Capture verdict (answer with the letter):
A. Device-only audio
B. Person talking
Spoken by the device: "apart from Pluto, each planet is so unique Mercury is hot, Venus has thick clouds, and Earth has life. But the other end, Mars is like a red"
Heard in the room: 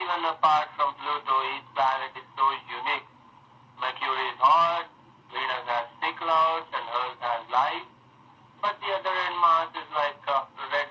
A